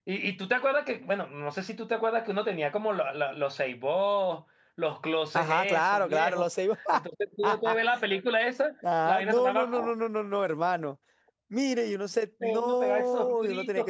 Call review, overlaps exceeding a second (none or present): present